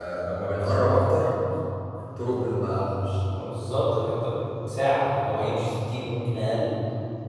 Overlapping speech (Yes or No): No